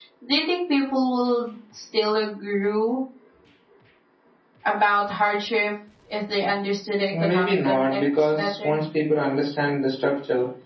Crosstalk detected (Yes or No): Yes